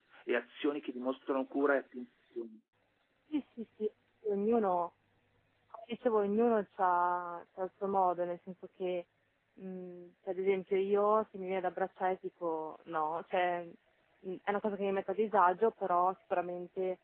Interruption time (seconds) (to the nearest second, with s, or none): none